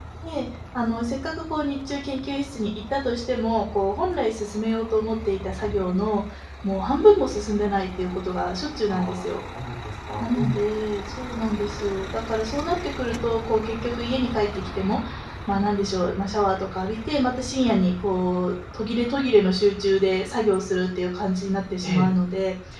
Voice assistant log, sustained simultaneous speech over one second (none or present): none